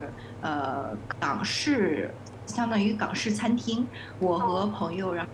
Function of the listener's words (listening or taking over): listening